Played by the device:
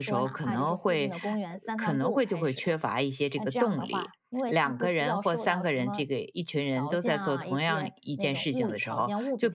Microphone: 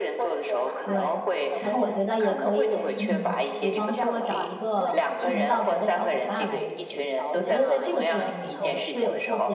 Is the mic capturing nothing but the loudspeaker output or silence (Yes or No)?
No